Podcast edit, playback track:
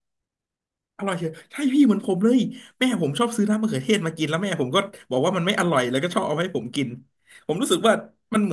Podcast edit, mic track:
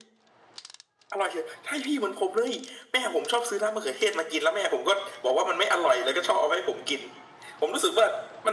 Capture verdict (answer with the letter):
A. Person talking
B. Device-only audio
B